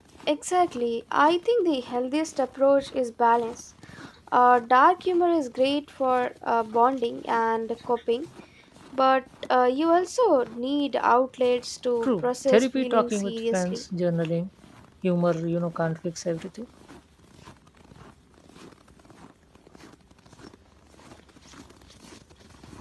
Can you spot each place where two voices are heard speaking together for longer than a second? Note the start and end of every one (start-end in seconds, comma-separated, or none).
12.0-13.8